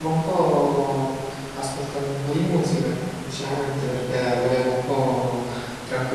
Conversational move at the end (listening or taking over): listening